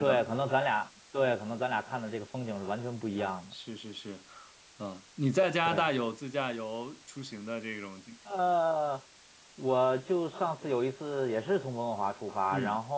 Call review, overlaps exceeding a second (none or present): none